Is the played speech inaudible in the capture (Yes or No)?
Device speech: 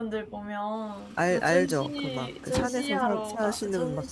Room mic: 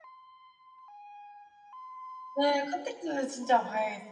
Yes